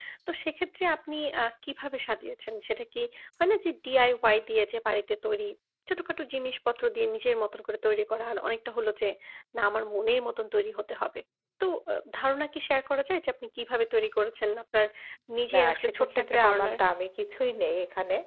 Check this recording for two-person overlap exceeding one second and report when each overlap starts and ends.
15.5-16.8

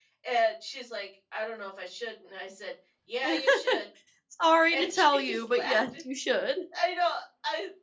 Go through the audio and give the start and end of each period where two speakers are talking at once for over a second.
4.7-6.0

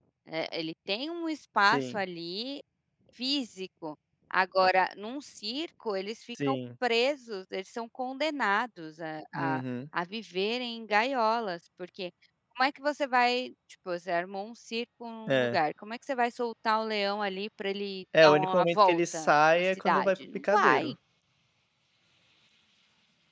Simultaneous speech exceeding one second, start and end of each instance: 18.2-20.9

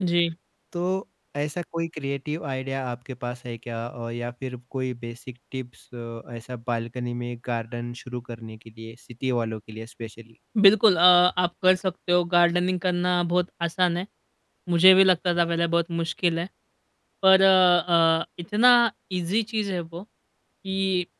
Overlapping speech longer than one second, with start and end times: none

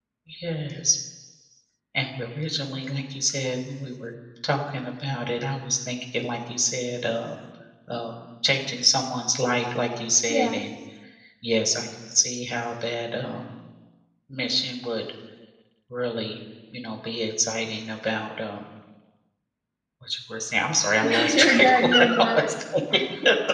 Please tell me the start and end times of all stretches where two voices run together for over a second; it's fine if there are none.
21.0-22.5

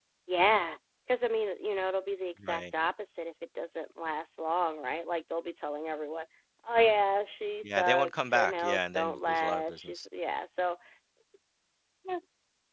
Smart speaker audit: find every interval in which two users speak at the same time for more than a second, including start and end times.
7.6-10.0

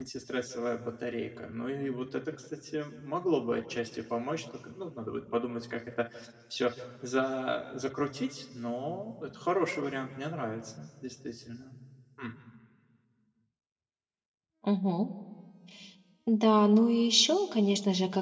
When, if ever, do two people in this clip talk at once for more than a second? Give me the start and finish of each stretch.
none

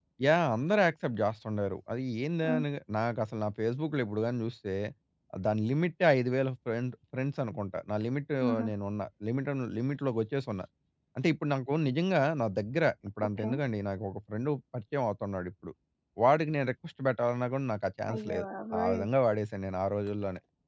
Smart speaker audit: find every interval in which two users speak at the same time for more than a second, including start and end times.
none

